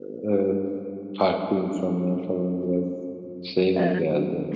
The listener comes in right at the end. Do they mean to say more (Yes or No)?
Yes